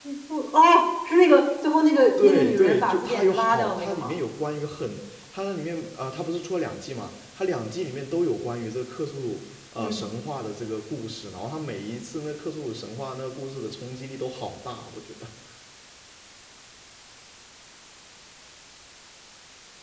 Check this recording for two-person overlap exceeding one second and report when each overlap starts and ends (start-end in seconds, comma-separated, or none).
2.2-4.1